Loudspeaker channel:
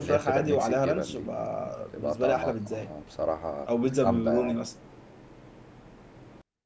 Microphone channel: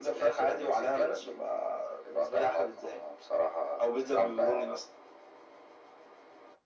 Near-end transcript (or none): none